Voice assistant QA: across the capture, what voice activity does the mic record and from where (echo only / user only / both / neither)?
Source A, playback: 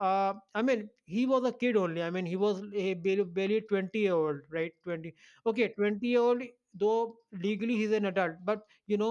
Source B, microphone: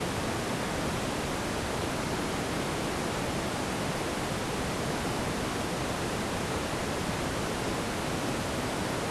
neither